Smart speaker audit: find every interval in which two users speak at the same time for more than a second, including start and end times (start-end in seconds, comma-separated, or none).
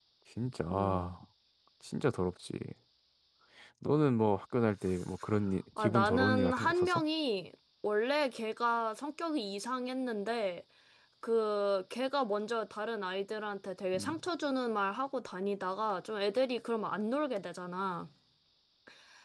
5.8-7.0